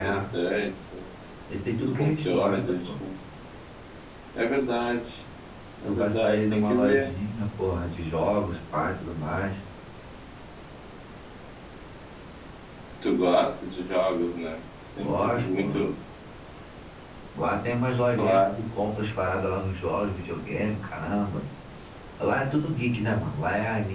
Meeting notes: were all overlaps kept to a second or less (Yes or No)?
No